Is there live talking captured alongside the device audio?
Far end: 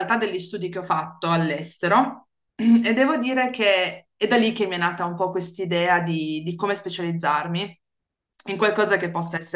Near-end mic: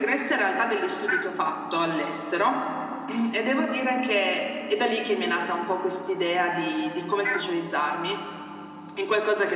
No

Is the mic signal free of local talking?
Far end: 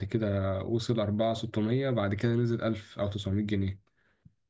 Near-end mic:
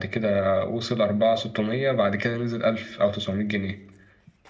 Yes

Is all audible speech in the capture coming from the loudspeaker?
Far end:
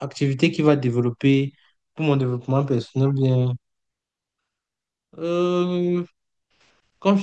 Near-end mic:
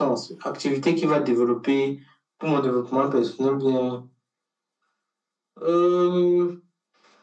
Yes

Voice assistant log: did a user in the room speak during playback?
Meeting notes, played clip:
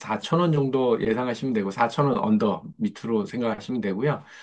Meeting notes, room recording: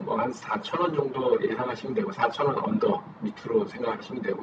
No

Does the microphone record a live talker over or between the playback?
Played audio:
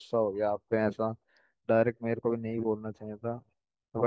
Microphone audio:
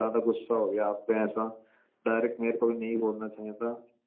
No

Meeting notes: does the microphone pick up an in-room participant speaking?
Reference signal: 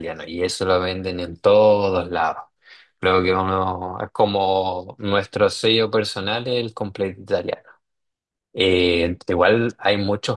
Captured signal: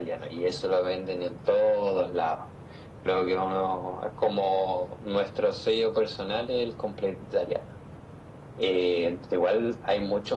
No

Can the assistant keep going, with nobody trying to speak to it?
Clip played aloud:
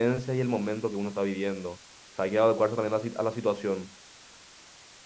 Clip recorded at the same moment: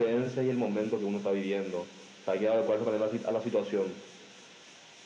Yes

